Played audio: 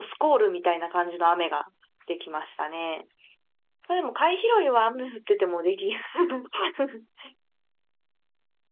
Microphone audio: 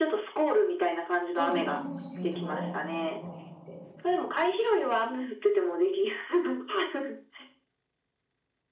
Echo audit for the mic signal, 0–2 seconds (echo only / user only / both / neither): both